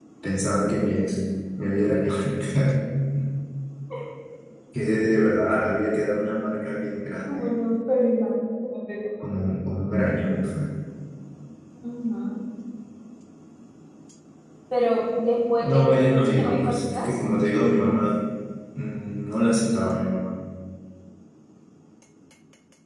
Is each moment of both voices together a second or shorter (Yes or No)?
No